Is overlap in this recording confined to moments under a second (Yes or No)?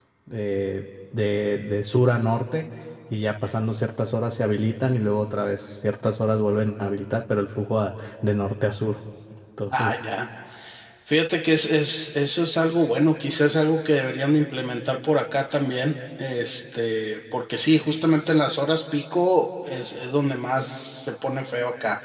Yes